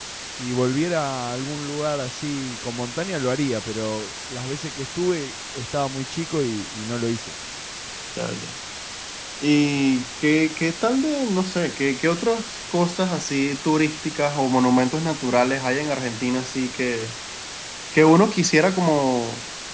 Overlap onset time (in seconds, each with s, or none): none